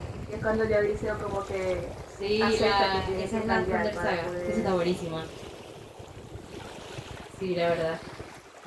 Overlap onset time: 2.4 s

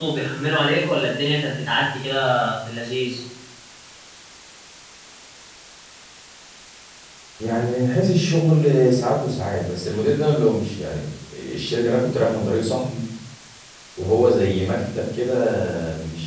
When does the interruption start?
none

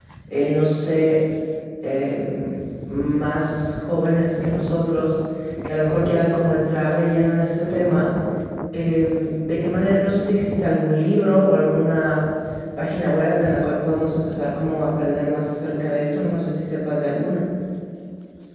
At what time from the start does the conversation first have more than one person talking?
none

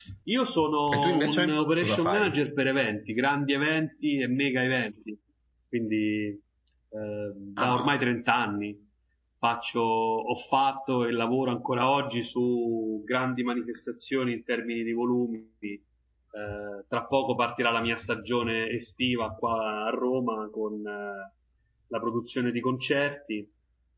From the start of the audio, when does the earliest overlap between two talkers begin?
0.9 s

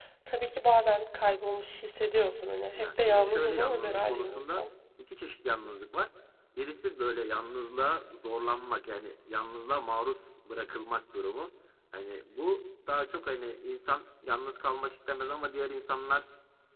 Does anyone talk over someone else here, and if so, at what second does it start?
2.8 s

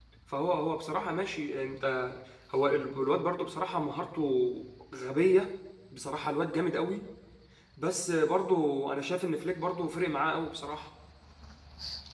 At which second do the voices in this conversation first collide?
none

